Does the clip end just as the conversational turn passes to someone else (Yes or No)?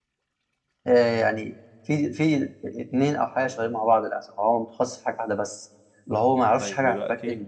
Yes